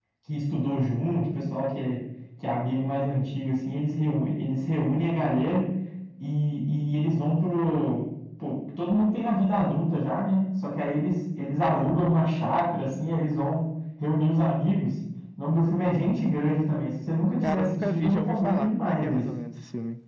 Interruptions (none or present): present